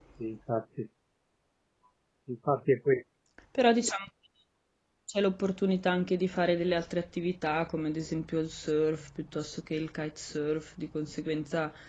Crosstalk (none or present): none